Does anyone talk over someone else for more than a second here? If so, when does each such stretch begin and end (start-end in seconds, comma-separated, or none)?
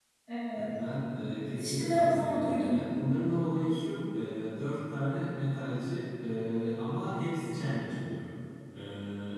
1.6-2.8